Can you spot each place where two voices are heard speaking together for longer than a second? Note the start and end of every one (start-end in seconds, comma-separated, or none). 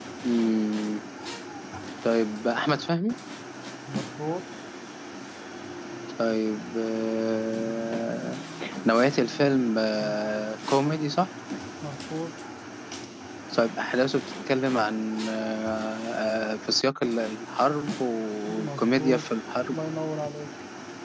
18.5-19.8